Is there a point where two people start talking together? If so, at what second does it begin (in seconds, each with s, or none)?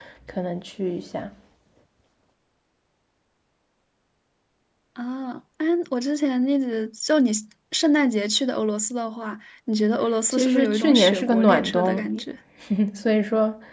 10.3 s